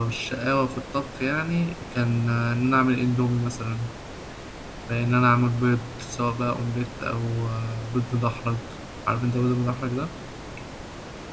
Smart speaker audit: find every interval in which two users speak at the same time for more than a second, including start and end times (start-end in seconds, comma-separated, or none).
none